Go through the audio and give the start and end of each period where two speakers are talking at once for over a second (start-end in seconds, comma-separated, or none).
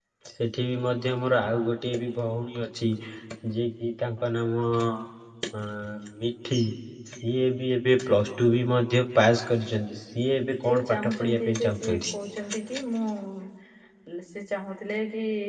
10.6-12.1